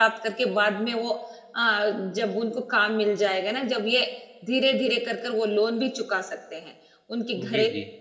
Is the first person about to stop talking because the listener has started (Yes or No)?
No